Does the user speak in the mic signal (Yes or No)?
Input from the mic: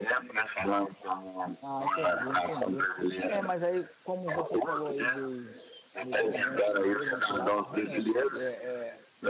Yes